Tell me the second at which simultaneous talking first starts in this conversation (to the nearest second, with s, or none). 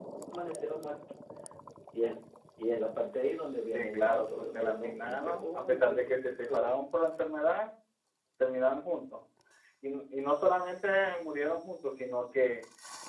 4 s